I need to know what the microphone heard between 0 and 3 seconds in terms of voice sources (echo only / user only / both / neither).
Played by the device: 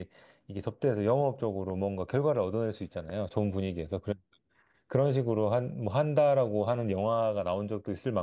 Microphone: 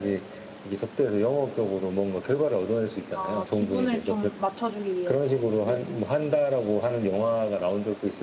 echo only